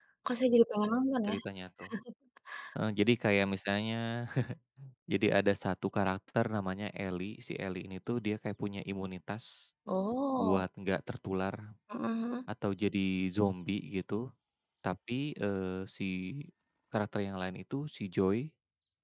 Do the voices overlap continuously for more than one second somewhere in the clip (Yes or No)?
No